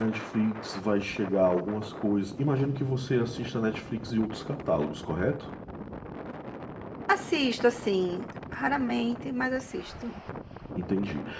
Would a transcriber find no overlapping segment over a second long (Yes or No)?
Yes